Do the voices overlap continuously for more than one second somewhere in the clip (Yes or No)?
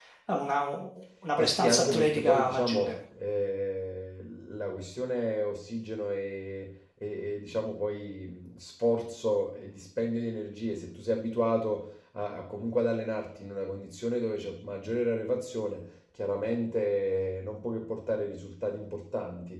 Yes